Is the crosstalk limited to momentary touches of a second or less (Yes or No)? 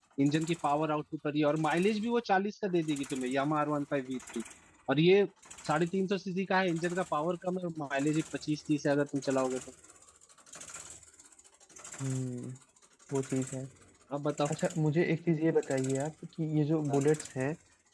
Yes